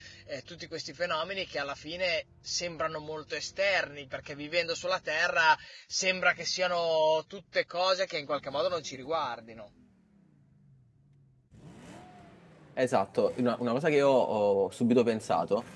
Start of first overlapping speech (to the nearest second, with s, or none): none